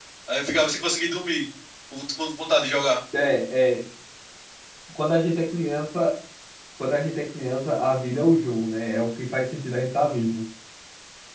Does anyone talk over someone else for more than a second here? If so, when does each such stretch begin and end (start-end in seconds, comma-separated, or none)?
none